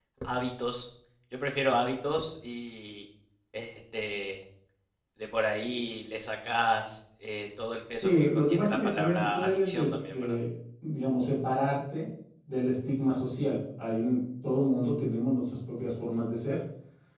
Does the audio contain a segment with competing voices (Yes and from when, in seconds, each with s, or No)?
Yes, from 7.9 s